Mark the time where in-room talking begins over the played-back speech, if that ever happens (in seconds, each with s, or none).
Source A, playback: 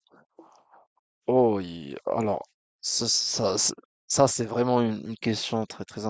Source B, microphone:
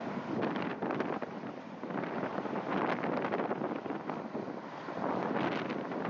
none